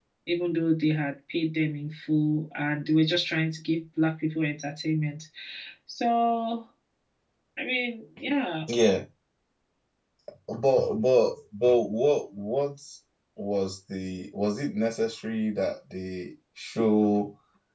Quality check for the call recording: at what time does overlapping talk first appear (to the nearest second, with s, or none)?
none